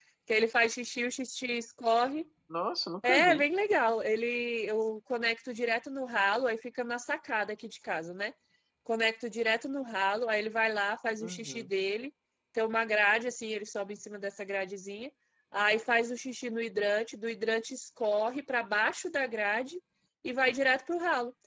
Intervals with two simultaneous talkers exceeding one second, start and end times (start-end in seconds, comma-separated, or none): none